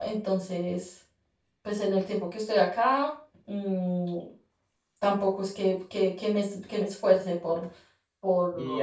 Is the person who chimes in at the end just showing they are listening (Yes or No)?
No